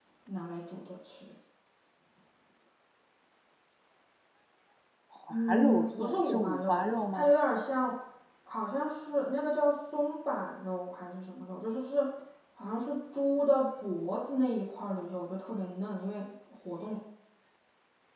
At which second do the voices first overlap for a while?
5.3 s

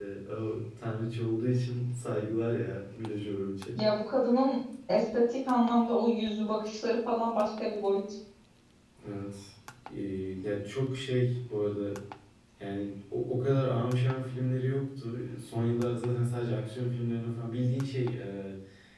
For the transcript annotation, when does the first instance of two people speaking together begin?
none

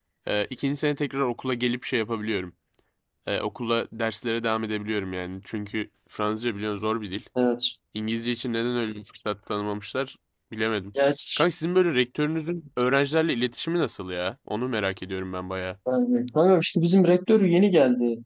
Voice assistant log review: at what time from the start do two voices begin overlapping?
none

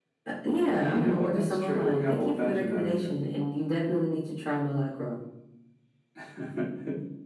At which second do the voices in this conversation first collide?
0.7 s

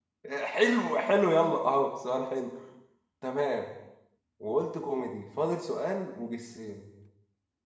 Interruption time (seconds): none

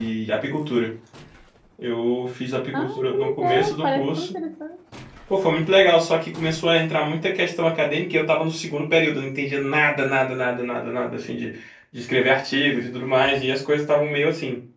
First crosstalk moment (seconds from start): 2.7 s

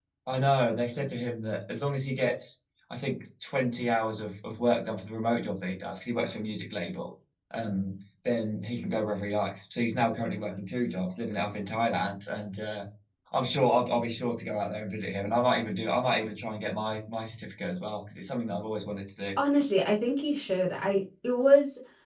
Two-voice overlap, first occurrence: none

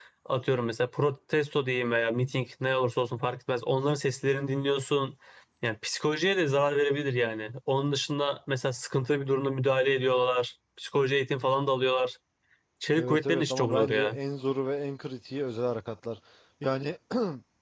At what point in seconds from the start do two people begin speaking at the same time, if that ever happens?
13.0 s

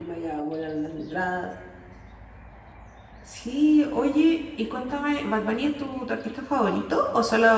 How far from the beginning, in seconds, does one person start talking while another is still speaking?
none

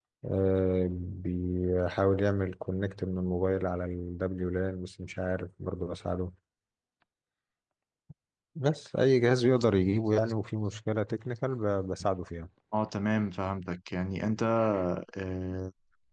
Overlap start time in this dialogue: none

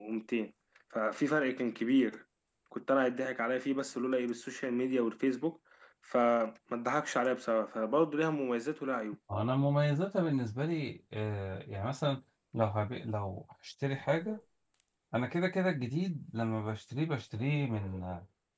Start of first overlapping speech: none

